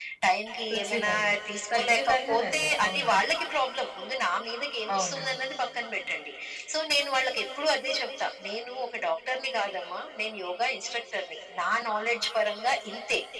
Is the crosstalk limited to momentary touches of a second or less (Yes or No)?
No